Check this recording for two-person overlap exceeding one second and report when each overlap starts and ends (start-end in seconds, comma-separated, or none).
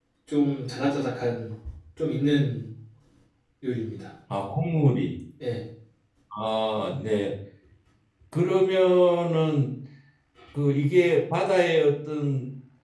none